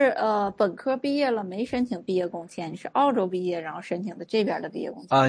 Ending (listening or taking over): taking over